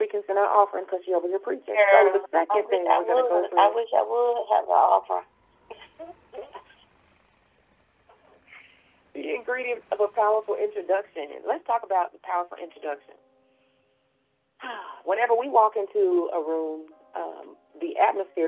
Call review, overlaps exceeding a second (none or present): present